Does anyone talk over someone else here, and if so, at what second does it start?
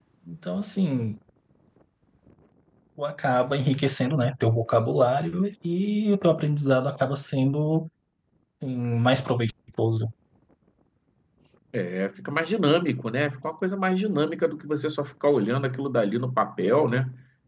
none

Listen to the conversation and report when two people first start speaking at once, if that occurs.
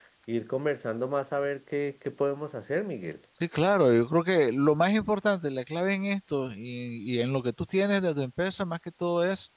none

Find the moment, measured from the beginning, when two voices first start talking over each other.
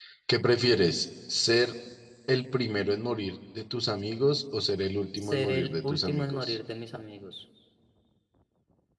5.2 s

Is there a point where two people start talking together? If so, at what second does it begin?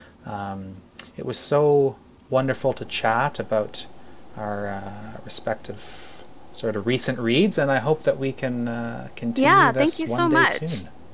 9.4 s

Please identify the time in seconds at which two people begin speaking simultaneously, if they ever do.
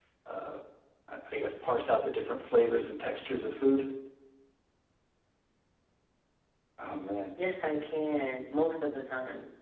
none

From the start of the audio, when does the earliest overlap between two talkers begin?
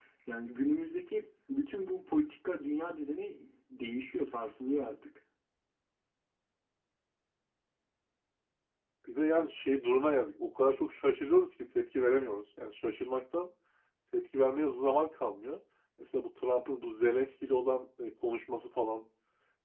none

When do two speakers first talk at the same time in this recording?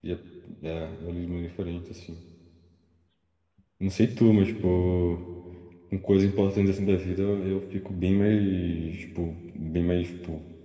none

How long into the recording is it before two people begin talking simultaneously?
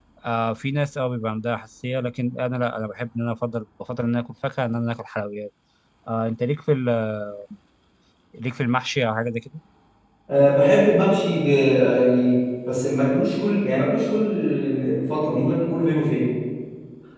none

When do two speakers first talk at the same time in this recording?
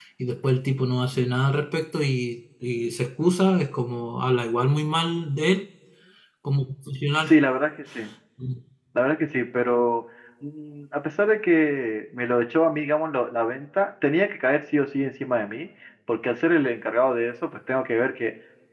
none

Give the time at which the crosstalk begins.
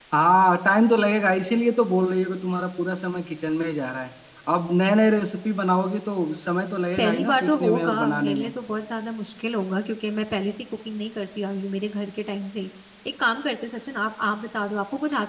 7.0 s

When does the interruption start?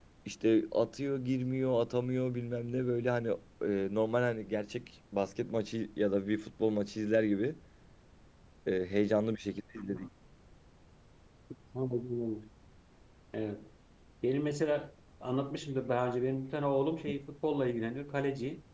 none

